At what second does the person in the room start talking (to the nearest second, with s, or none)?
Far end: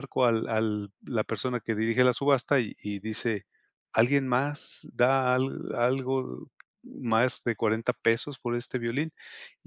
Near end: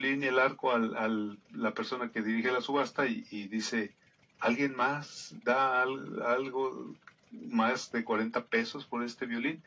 none